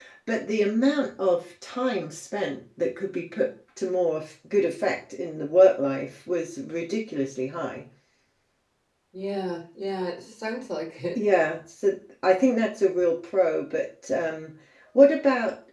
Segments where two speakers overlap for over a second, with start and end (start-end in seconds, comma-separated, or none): none